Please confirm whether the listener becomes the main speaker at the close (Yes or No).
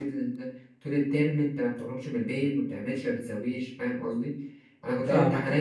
No